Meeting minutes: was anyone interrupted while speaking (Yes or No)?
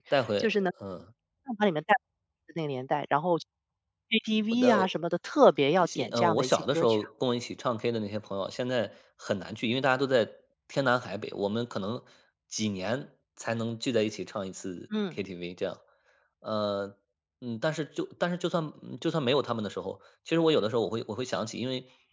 Yes